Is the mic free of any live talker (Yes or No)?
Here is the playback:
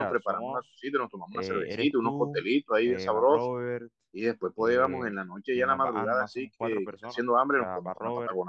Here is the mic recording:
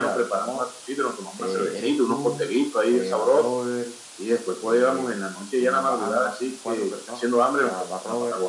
Yes